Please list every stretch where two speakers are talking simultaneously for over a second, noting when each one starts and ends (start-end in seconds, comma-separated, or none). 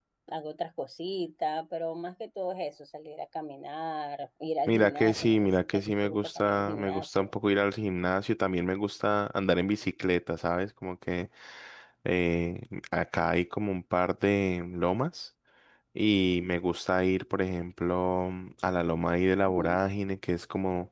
4.7-7.3